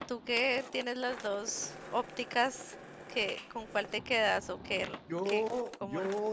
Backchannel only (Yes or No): No